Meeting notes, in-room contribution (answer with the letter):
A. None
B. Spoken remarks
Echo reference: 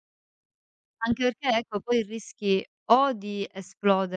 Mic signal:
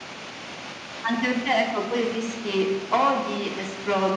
A